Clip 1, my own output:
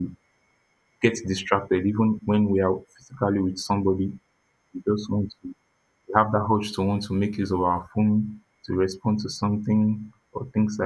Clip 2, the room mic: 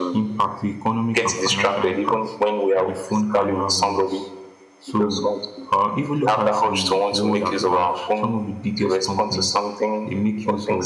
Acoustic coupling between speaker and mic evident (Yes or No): Yes